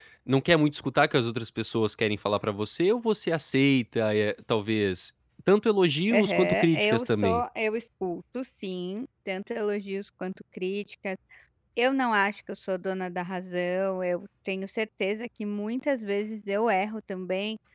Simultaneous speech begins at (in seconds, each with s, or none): 6.1 s